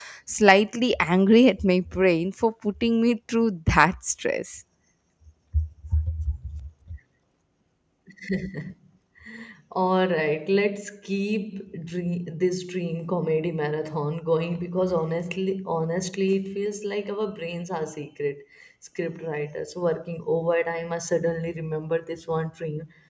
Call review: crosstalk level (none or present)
none